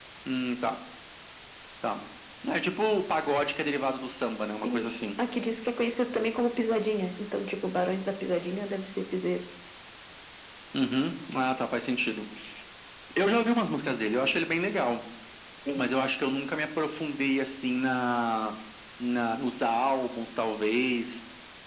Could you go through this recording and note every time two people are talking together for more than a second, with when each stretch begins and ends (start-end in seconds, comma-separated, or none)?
none